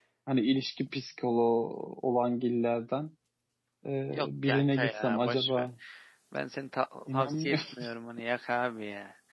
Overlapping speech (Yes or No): Yes